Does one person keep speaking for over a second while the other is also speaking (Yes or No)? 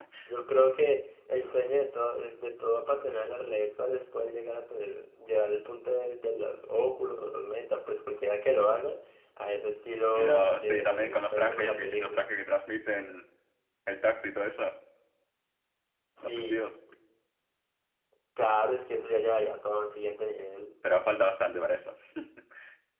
Yes